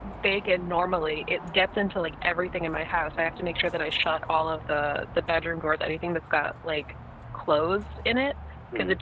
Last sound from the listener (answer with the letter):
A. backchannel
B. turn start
A